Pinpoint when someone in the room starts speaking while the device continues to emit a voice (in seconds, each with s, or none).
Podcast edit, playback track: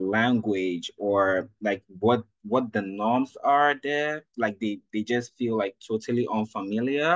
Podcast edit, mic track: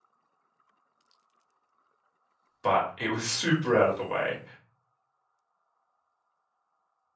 2.6 s